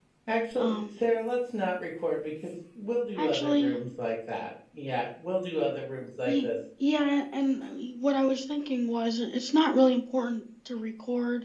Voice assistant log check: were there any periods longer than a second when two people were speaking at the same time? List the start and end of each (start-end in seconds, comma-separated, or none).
none